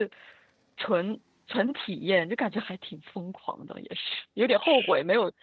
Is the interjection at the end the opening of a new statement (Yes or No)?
No